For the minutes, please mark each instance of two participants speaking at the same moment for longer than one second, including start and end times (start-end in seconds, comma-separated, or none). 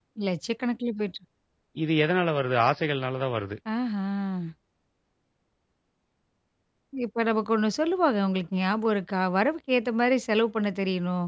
none